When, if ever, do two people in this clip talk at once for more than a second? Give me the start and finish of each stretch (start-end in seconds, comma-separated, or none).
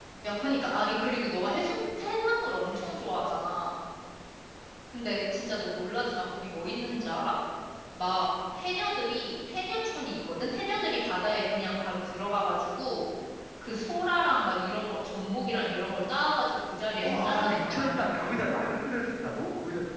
17.0-18.5